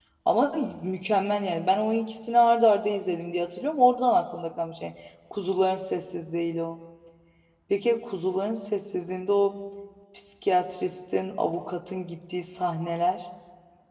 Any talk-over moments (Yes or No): No